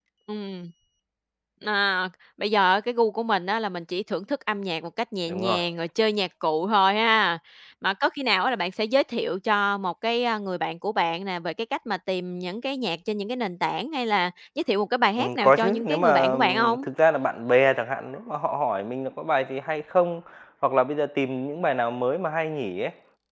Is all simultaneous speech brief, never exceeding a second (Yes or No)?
No